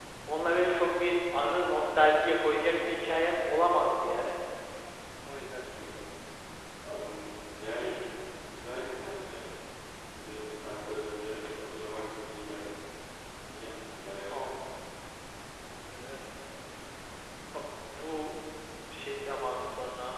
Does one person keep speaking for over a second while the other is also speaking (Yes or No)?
No